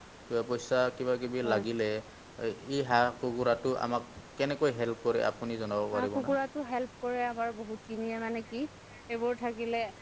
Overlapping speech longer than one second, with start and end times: none

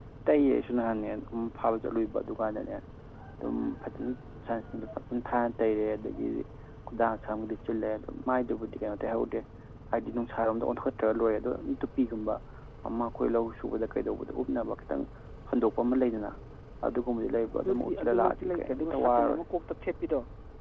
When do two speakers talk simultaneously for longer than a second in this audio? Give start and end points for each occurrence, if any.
17.6-19.4

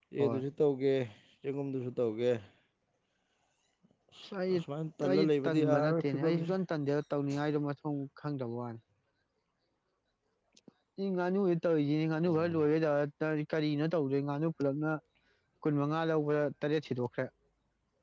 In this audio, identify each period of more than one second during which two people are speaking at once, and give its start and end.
5.1-6.5

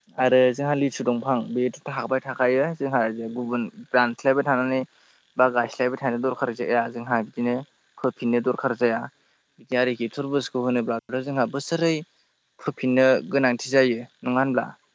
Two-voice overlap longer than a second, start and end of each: none

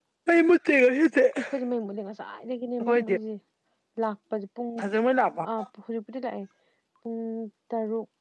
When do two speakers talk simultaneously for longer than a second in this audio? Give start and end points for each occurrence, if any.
none

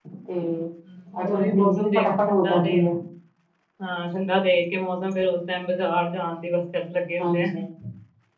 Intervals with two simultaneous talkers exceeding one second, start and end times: 1.2-2.8

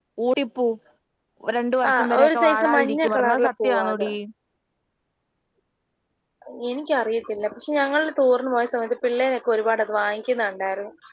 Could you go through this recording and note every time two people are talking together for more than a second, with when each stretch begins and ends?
1.9-4.1

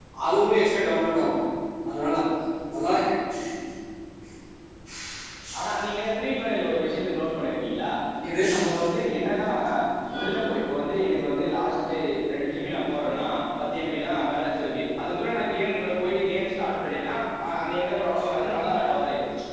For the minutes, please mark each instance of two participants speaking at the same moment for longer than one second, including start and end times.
none

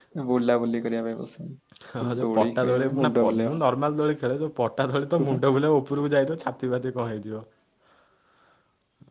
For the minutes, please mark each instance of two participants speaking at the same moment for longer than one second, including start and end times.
2.0-3.6

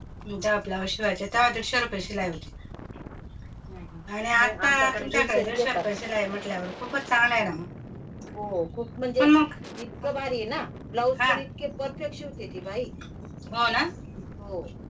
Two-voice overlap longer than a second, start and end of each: 4.3-5.8

